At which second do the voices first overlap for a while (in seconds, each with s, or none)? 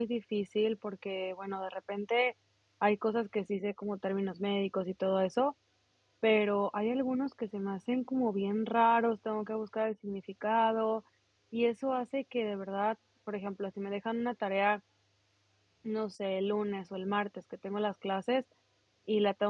none